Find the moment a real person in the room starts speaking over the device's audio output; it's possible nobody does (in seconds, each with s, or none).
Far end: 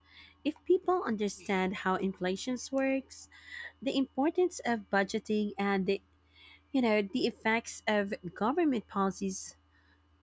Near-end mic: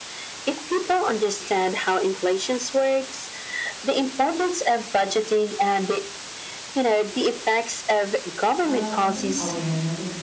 8.6 s